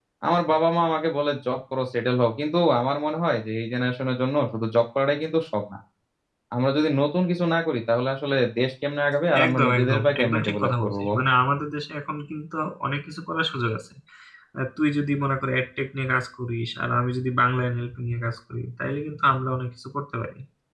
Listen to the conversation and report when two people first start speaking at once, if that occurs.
9 s

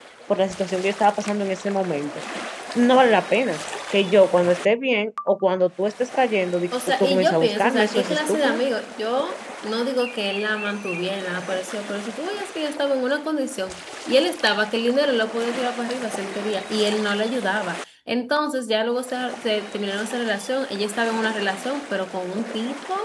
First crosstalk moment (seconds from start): 7 s

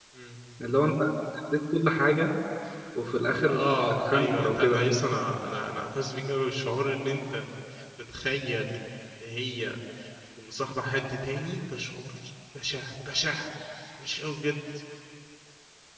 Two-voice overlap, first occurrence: 3 s

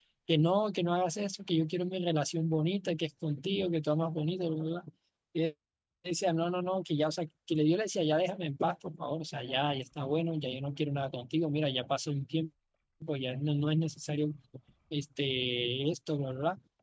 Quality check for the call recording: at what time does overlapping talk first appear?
none

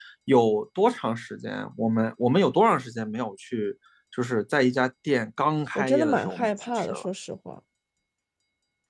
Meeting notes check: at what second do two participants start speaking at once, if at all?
6 s

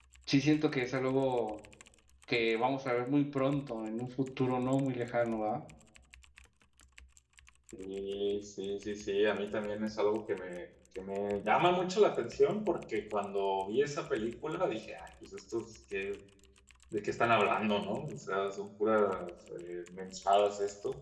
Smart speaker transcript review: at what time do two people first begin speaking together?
none

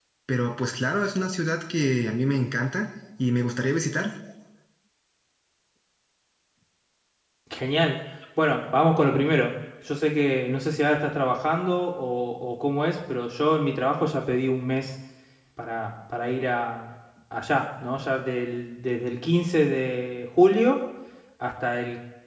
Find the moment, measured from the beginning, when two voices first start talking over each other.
none

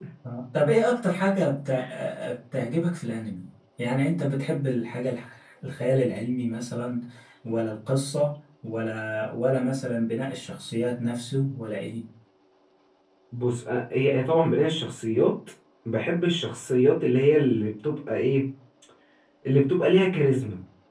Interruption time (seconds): none

